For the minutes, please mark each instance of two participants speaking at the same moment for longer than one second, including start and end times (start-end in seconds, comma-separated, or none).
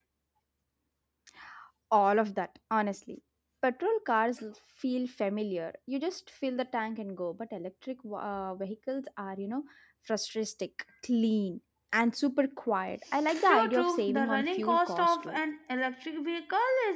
13.5-15.4